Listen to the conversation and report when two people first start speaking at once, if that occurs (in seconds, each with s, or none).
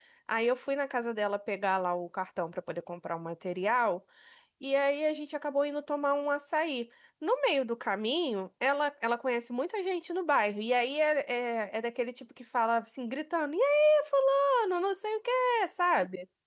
none